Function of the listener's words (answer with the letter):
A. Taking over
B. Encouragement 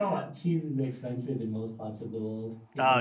A